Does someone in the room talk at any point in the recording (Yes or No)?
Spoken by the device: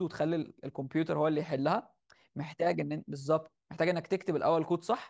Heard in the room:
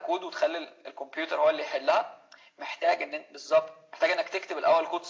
No